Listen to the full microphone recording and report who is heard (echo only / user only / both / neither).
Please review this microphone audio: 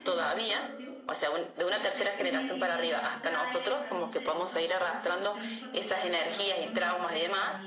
both